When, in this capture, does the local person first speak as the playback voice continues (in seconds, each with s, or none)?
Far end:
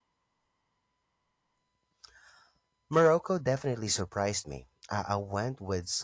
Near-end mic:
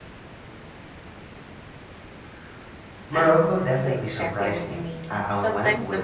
3.1 s